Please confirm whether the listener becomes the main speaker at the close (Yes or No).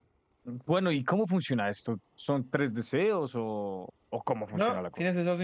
Yes